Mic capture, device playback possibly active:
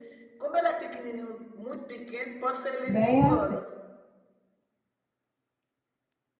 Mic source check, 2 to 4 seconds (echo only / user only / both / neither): both